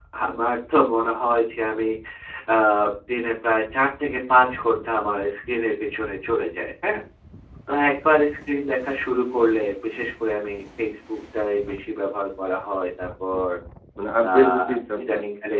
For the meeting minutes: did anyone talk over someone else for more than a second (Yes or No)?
No